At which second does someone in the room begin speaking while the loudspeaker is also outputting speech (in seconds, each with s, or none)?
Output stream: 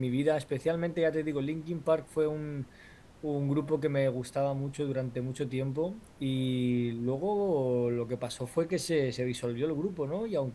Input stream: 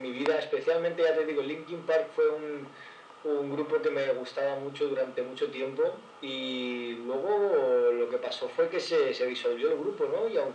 none